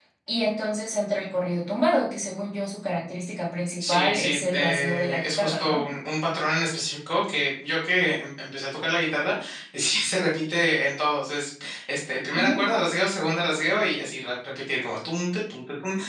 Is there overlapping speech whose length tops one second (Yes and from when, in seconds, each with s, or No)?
Yes, from 3.8 s